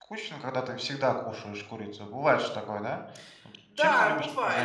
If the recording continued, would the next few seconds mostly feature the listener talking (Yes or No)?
Yes